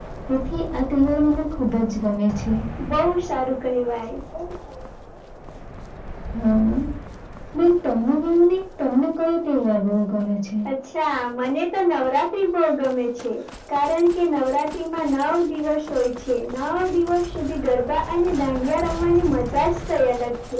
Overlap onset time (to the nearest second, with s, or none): none